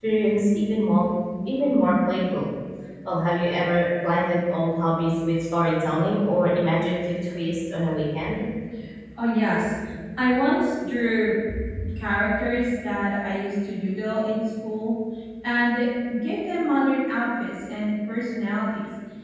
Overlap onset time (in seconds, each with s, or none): none